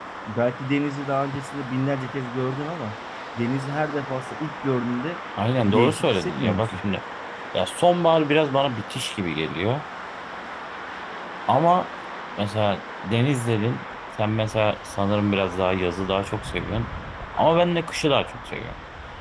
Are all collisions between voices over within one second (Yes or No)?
No